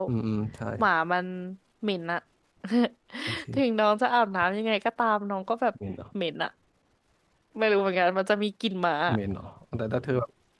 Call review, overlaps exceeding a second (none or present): none